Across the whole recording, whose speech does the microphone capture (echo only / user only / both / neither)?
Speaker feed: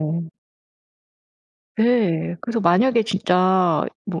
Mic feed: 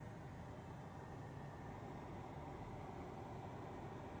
neither